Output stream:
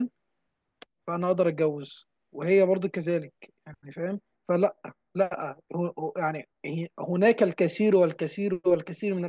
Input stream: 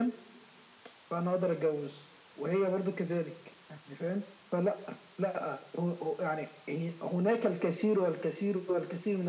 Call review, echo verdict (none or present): present